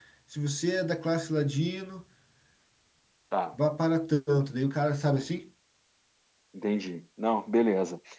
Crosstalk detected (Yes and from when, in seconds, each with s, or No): No